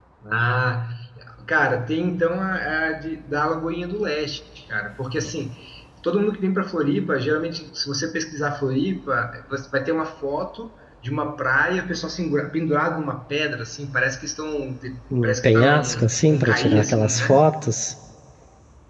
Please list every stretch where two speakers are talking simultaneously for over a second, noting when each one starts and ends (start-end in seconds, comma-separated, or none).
15.2-17.5